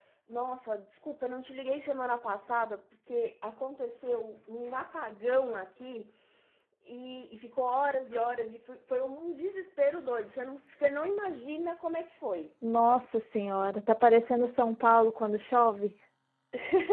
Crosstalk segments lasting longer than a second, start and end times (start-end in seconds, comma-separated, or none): none